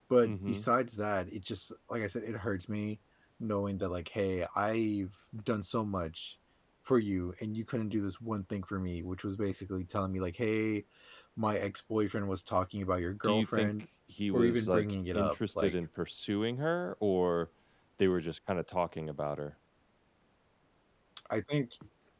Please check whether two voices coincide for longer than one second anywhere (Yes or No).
Yes